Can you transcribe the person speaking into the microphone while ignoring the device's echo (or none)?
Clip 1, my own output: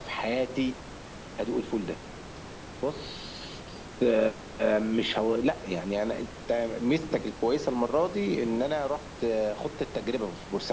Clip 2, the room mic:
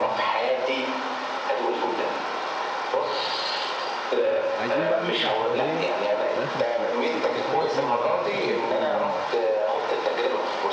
عايزين بقى نطلع سفرية في اخر الصيف بس سفرية طويلة بقى فككم من حوار يومين ده